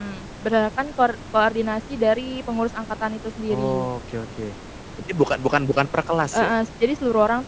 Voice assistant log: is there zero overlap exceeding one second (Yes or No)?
Yes